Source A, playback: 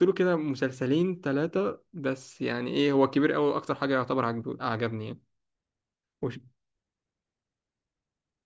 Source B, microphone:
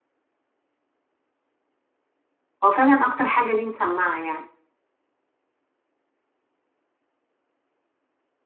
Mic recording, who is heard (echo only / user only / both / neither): user only